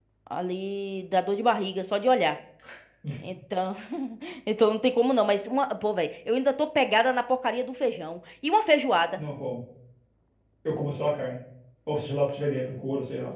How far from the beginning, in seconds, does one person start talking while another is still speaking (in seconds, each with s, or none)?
none